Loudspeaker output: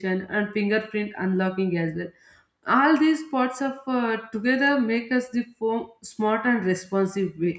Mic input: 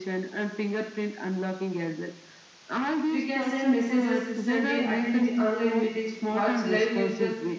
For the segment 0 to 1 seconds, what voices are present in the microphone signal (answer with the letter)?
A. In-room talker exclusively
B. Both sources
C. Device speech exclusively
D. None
C